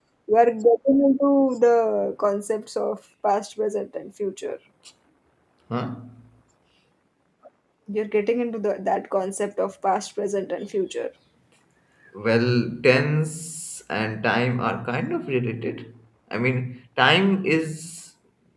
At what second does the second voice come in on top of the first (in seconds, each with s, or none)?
none